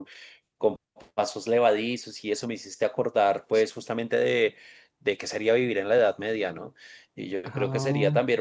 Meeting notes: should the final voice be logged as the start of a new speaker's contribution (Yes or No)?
No